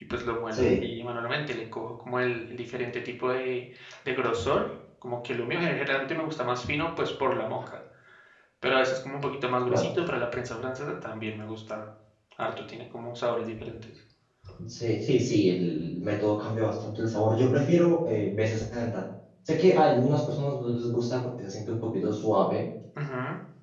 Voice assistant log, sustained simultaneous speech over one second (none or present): none